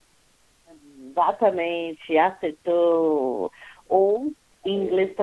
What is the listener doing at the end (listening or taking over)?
listening